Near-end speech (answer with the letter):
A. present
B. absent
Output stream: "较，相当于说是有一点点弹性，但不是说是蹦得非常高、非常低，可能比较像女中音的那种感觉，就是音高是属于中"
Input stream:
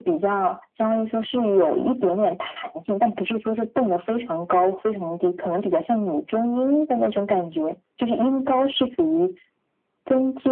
B